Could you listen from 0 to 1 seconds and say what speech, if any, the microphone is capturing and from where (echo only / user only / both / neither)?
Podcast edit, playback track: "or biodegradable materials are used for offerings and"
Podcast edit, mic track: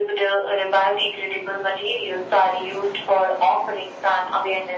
echo only